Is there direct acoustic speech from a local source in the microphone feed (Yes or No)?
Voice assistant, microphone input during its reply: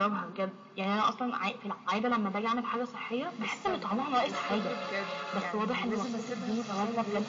No